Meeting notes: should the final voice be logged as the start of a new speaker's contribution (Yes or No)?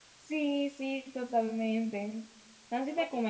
No